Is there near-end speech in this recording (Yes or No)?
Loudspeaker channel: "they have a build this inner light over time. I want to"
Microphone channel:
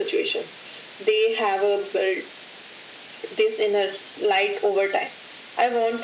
No